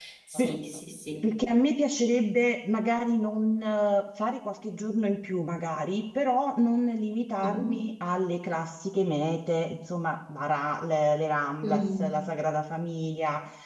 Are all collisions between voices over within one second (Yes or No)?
Yes